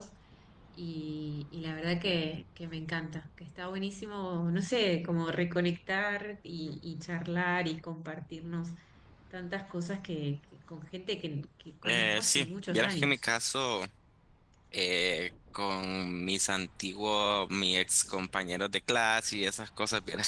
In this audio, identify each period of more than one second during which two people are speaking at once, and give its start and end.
11.8-13.2

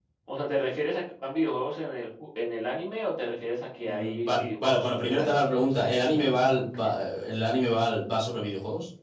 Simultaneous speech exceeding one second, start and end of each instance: 3.8-6.9

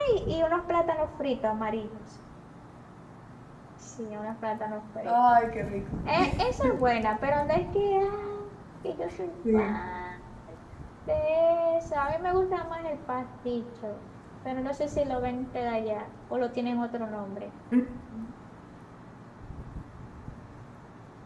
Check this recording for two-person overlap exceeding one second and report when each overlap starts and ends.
none

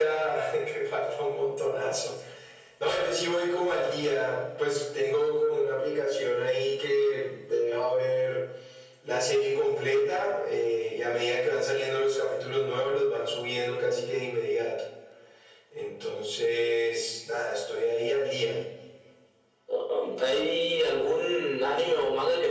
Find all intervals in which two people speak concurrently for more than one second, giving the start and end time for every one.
none

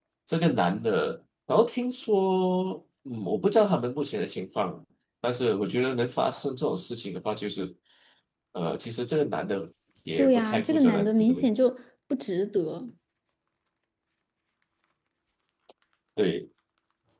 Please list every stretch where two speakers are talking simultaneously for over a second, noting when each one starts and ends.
10.2-11.5

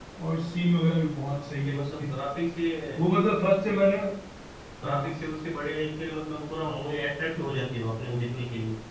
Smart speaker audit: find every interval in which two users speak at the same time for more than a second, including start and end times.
none

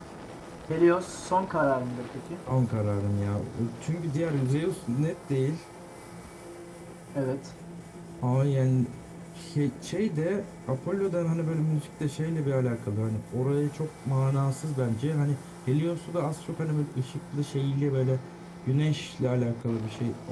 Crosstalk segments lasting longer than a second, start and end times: none

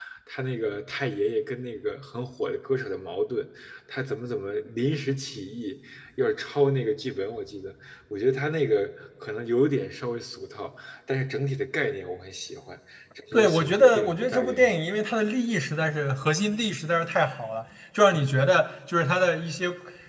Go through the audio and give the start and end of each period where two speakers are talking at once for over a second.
13.3-14.7

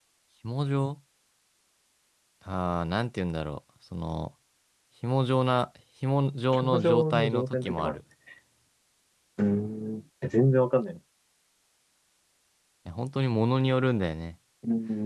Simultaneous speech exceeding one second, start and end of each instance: 6.5-8.0

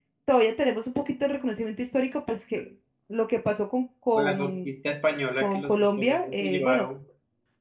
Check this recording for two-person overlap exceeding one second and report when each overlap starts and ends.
5.4-6.8

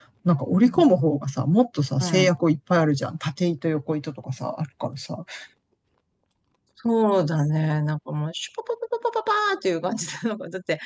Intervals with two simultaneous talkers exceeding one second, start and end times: none

